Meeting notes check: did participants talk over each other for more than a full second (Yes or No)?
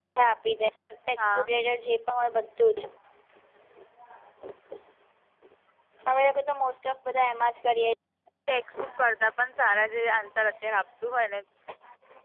No